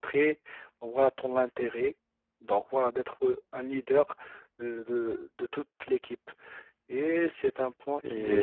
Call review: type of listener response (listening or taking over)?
taking over